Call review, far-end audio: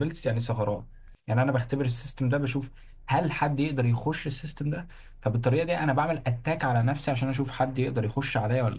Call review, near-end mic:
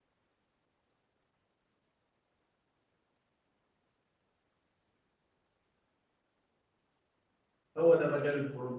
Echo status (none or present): none